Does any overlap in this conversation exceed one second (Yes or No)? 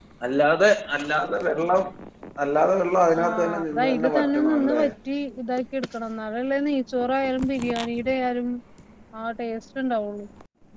Yes